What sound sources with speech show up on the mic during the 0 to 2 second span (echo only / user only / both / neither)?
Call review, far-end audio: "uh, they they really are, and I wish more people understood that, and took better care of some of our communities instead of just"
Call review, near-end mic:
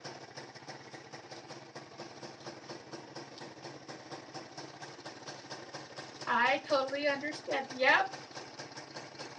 neither